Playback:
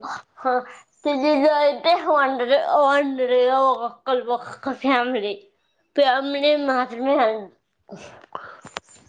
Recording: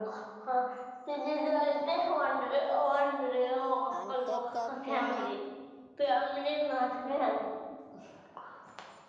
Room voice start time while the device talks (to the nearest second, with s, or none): 4 s